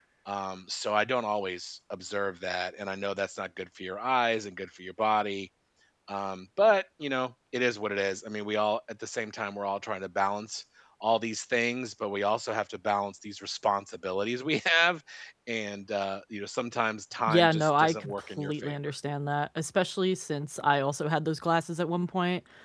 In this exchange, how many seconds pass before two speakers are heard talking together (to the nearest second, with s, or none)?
17 s